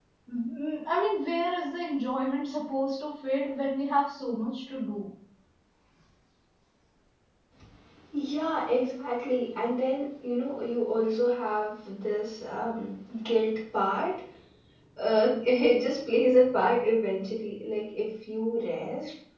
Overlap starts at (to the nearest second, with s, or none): none